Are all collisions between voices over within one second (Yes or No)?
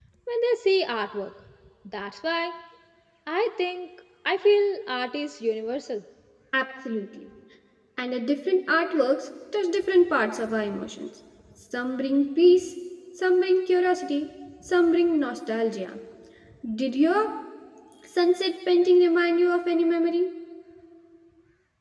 Yes